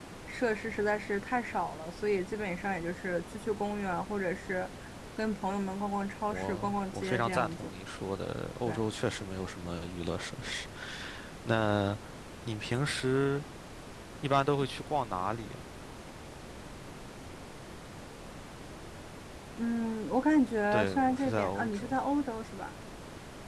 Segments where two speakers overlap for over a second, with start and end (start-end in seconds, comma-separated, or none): 6.3-7.7, 20.7-21.9